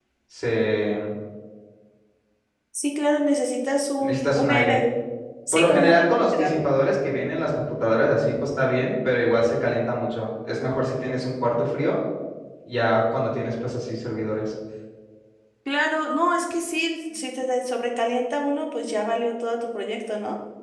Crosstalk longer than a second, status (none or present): present